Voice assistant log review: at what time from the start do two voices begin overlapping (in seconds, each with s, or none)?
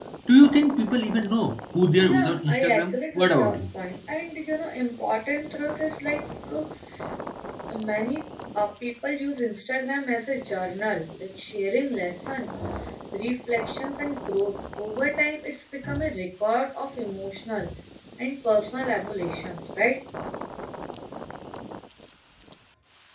1.9 s